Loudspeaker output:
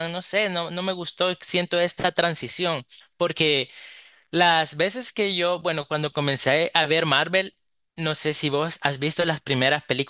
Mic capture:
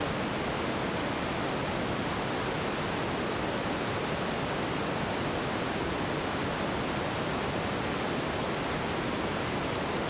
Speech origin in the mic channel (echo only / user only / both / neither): neither